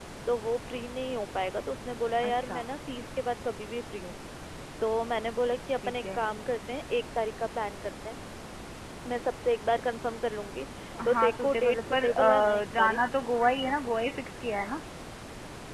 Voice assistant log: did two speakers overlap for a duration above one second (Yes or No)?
Yes